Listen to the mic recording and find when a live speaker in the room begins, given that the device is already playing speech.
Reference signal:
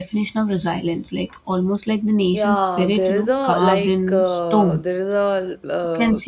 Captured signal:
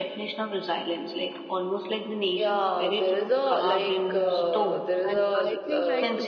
4.1 s

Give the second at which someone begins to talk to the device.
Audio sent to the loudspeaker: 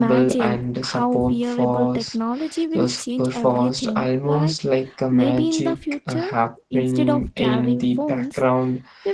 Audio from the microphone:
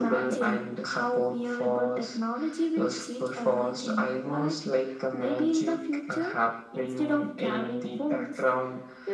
none

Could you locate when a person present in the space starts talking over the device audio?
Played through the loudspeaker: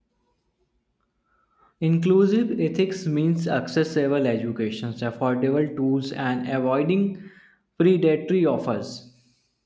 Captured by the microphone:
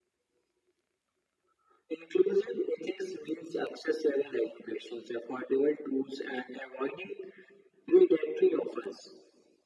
none

